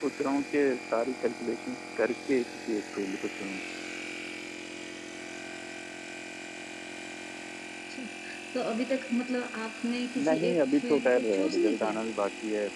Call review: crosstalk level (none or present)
present